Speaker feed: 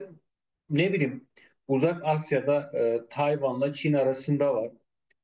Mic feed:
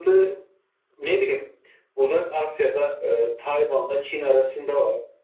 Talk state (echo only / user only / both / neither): echo only